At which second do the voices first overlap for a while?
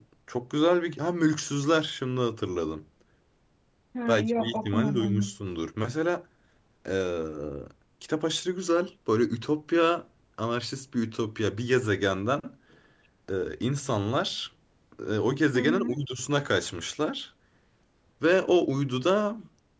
4.1 s

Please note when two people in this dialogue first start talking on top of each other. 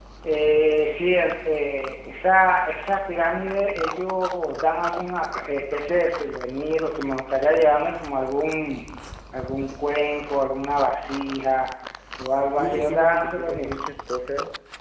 12.5 s

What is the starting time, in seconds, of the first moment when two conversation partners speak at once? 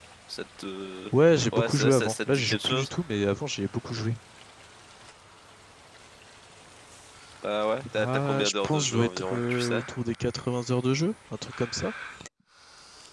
1.5 s

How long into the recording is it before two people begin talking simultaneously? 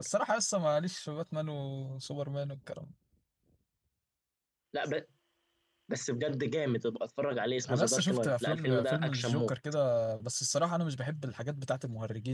7.7 s

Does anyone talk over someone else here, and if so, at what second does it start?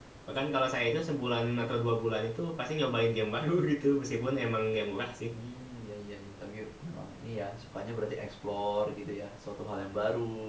none

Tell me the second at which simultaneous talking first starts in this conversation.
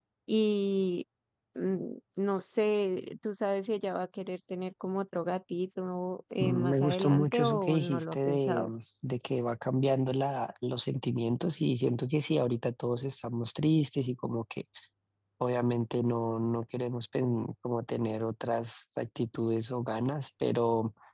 6.4 s

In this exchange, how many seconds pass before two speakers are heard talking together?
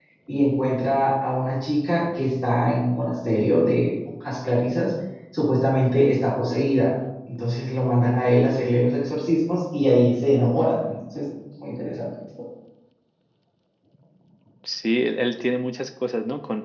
none

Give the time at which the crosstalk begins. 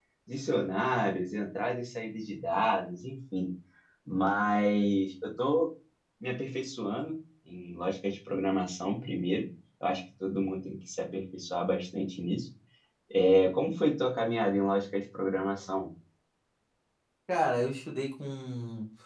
none

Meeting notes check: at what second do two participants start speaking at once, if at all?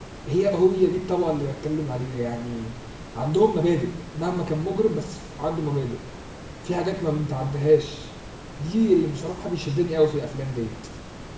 none

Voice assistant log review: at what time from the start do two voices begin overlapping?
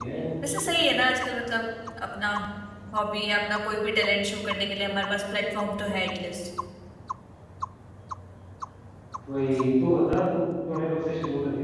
none

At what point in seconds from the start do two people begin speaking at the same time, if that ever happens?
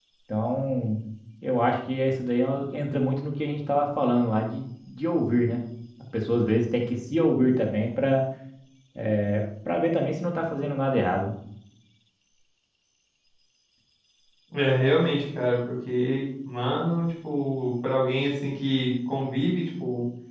none

